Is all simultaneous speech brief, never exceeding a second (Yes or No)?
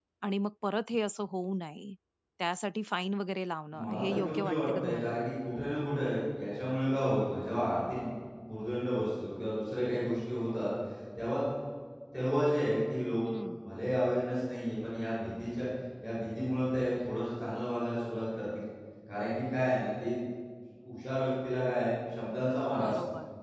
No